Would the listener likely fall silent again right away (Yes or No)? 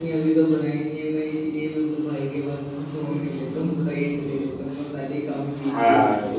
No